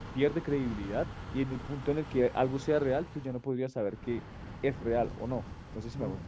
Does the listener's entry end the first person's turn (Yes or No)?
Yes